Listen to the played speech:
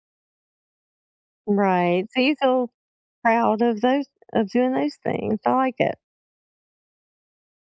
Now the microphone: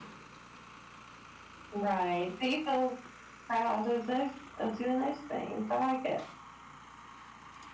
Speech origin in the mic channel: echo only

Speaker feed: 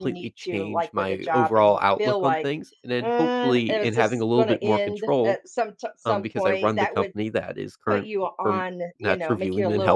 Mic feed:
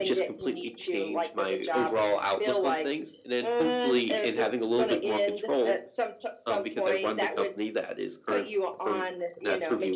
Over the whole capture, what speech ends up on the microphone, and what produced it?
echo only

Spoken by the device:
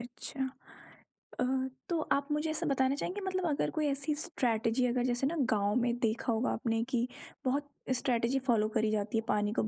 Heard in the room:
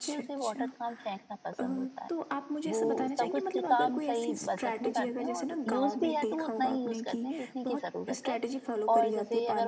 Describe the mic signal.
both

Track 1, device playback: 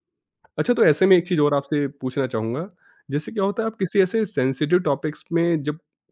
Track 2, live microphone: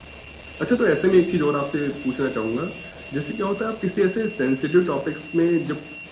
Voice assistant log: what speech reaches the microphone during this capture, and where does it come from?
echo only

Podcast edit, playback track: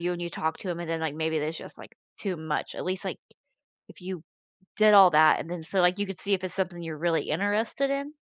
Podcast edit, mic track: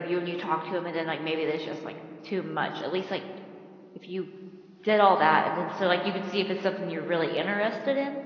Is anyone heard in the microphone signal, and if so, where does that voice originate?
echo only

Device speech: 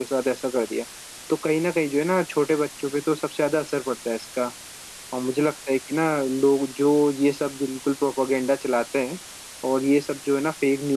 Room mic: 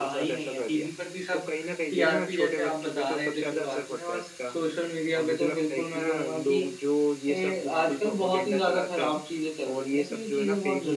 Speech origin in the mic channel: both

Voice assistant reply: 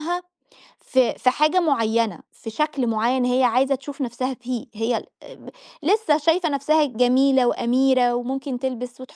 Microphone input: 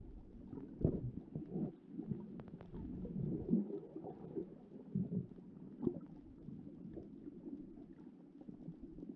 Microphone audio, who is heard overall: neither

